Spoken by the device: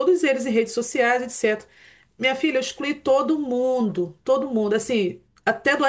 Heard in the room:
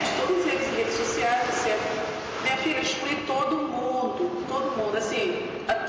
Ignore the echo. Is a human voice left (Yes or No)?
No